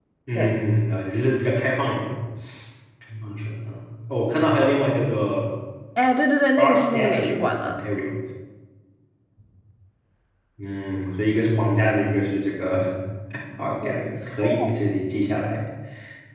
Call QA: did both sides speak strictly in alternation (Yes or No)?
No